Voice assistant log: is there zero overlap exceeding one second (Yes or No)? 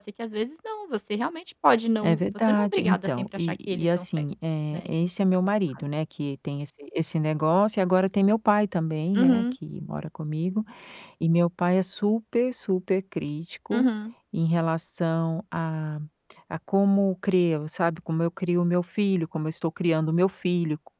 No